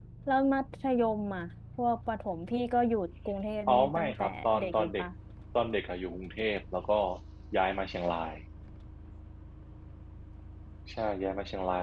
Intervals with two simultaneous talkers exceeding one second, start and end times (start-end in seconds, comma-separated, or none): 3.7-5.1